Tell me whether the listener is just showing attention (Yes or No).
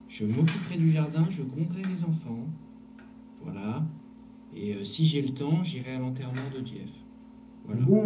No